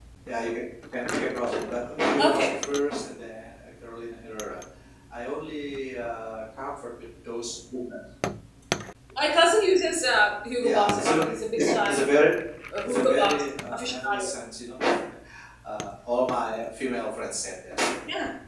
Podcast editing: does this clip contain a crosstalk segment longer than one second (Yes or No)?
Yes